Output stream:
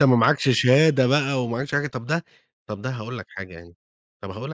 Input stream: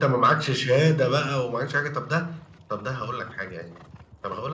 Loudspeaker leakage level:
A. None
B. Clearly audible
B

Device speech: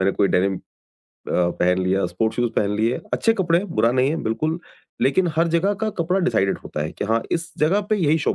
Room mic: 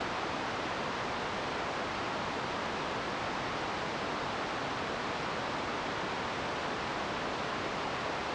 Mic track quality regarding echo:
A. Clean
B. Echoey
A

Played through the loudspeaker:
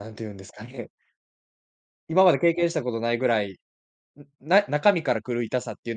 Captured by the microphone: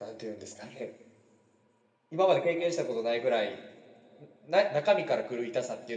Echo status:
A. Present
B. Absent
A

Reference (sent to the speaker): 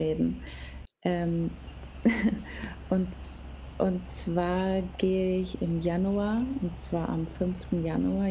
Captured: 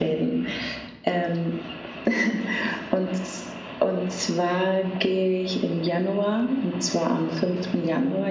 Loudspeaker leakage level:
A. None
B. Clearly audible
B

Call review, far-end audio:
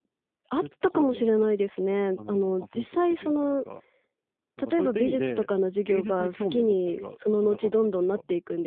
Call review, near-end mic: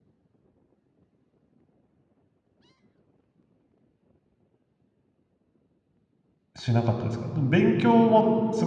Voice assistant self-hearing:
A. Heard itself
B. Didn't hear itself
B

